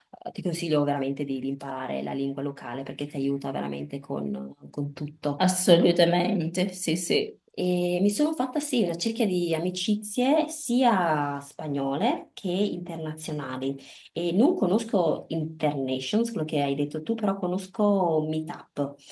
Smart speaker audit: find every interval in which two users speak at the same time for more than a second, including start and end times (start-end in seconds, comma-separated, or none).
none